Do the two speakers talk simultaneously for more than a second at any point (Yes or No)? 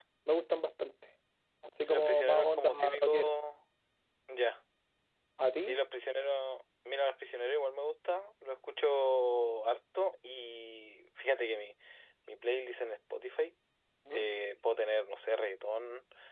Yes